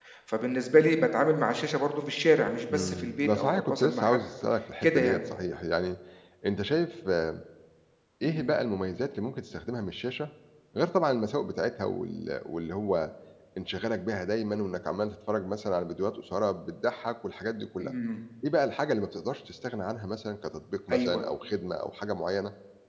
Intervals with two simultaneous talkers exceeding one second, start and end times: 2.7-4.2

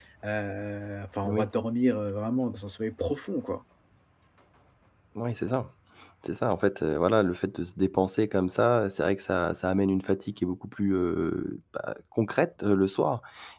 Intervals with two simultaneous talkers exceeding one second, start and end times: none

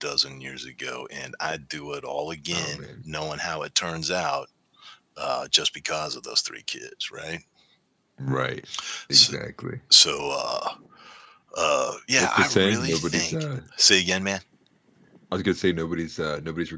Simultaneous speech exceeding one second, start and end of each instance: 12.2-13.4

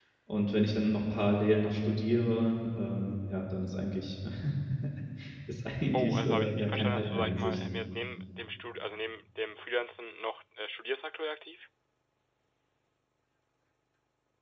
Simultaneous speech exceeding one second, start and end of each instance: 5.9-7.6

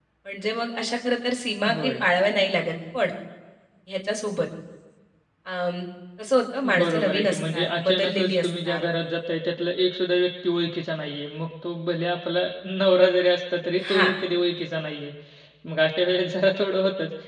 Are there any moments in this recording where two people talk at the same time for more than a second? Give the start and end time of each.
6.8-8.8

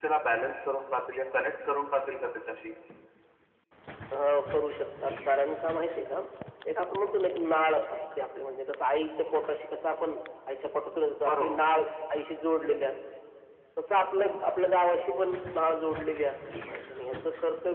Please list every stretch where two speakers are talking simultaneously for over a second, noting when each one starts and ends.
none

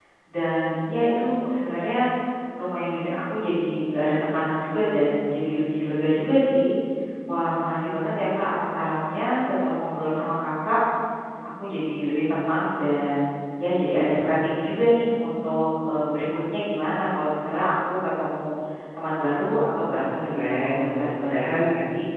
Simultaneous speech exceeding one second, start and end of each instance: 19.9-21.6

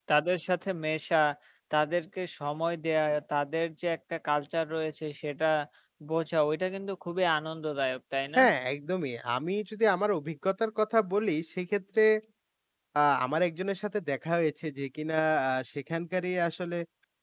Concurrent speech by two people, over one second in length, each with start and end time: none

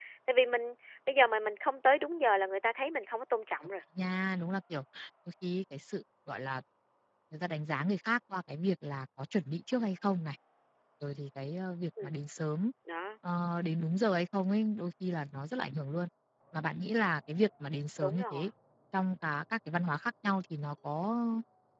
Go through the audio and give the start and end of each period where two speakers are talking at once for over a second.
none

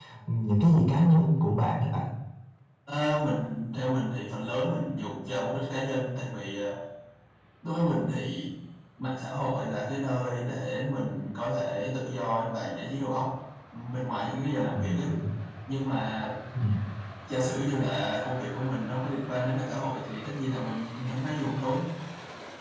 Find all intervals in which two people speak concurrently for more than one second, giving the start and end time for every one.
none

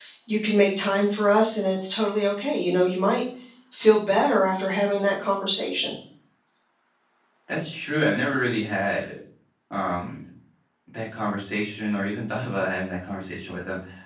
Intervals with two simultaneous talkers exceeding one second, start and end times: none

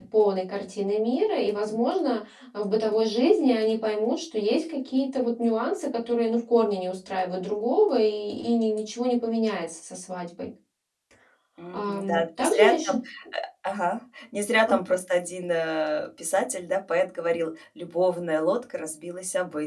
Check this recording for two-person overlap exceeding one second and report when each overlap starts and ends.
11.7-13.0

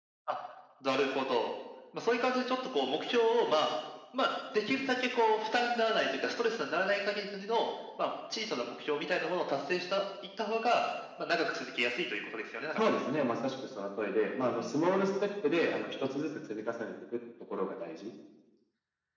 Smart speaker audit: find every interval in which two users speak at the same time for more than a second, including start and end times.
none

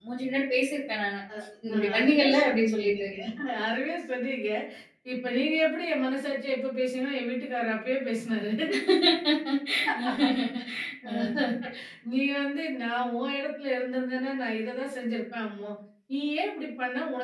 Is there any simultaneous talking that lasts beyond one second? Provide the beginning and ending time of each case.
1.7-3.1

